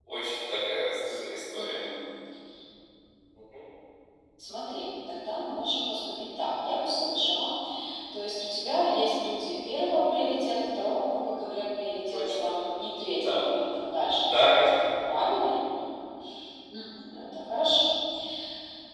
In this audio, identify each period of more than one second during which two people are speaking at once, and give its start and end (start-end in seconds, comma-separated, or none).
none